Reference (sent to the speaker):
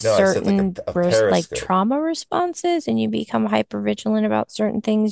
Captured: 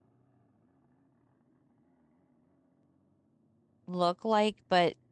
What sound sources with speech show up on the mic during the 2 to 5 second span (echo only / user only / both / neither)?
user only